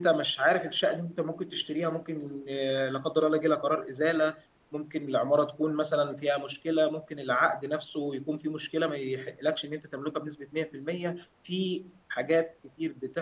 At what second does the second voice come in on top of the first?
none

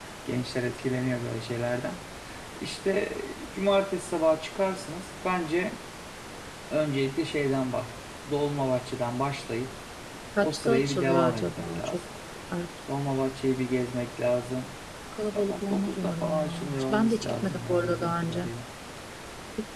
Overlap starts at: 10.4 s

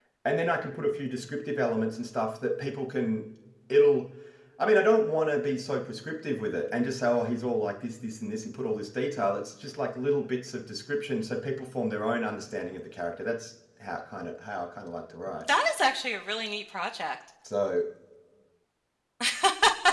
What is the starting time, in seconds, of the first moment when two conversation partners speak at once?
none

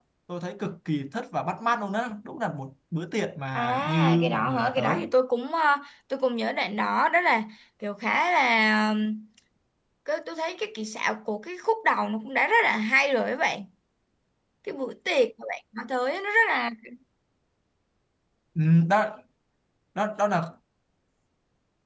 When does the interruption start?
3.5 s

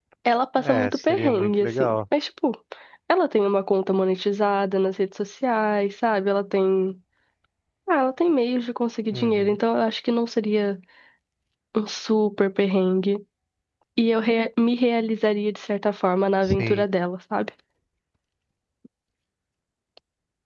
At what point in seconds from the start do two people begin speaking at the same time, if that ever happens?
0.6 s

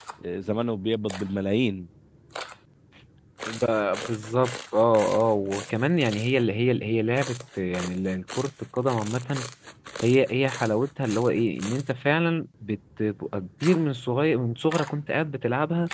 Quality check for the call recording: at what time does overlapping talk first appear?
none

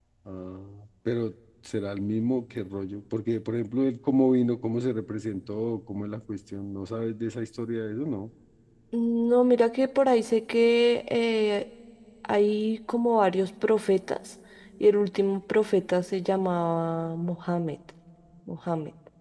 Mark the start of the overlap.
none

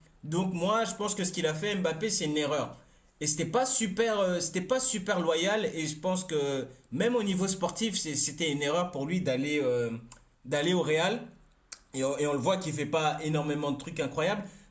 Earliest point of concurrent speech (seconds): none

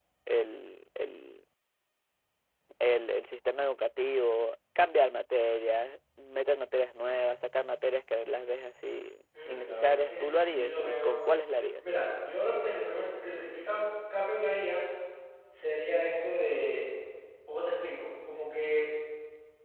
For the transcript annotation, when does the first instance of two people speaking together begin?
9.3 s

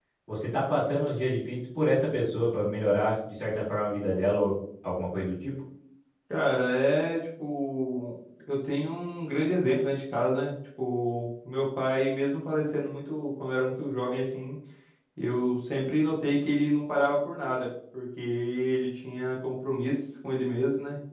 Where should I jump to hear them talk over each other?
none

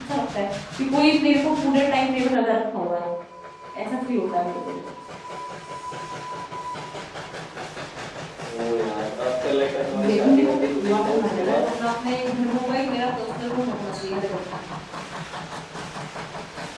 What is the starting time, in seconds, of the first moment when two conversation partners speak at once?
9.9 s

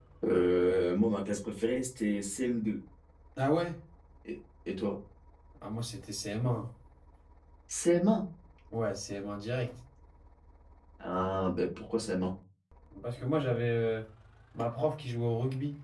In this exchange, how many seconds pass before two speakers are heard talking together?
none

